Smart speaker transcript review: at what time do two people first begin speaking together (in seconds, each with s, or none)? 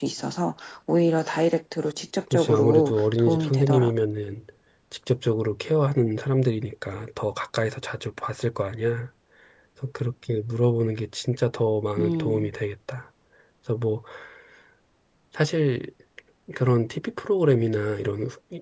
2.3 s